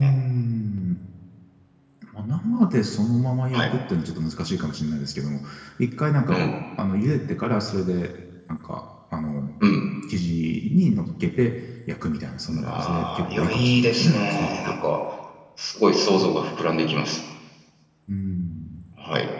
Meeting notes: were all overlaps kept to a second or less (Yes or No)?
No